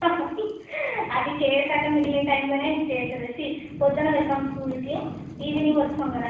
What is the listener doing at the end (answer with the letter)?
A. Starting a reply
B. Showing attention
B